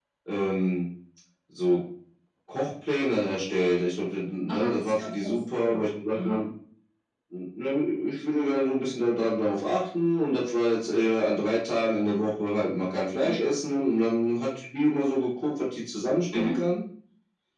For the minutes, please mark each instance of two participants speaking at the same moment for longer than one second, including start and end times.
4.5-5.8

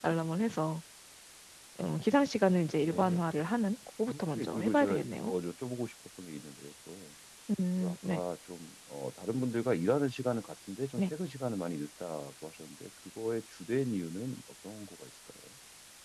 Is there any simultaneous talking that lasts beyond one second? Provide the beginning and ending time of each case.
4.1-5.3

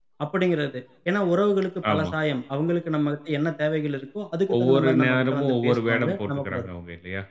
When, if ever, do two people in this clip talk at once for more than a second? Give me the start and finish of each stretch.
4.6-6.7

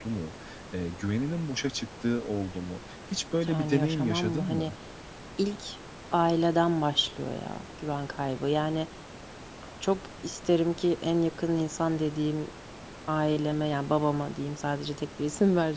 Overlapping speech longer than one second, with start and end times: 3.5-4.7

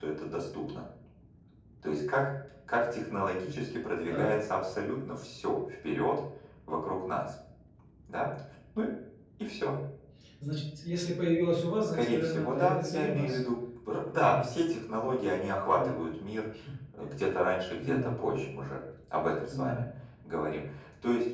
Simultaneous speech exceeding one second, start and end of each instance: 11.8-13.4

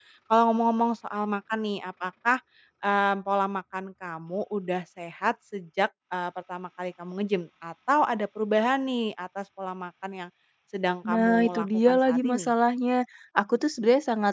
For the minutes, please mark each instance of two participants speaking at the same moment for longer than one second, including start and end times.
11.0-12.5

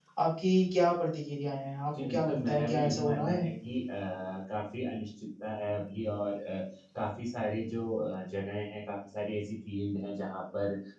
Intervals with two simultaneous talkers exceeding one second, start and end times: 2.0-3.4

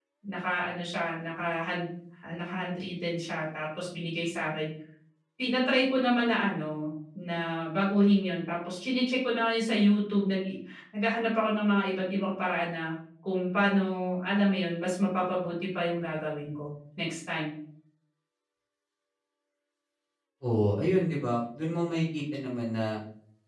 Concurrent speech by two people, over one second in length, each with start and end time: none

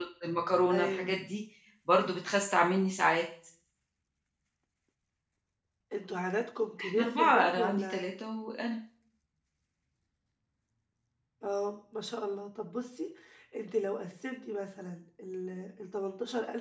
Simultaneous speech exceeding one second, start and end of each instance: 6.8-8.1

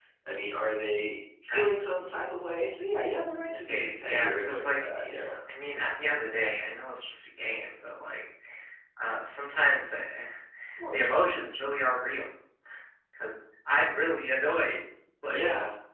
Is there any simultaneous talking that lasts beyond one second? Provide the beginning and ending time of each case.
3.7-5.1

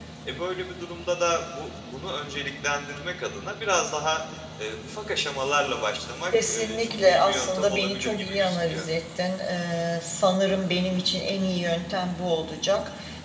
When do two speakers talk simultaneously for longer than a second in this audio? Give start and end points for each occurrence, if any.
6.4-8.8

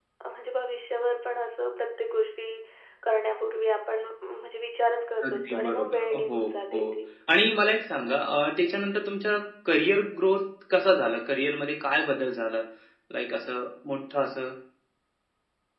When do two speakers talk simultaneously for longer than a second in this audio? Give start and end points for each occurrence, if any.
5.2-6.9

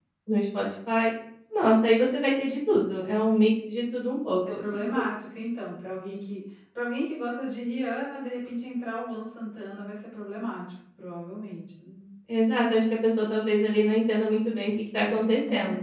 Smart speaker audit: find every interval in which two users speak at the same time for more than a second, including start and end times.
none

